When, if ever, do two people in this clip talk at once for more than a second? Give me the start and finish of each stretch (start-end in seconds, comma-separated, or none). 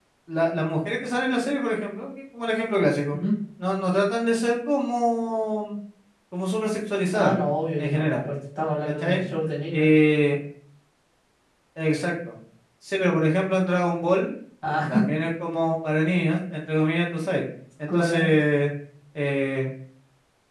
none